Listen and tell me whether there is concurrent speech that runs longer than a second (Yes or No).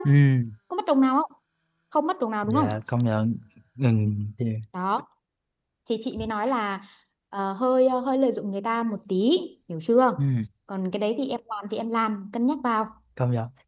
No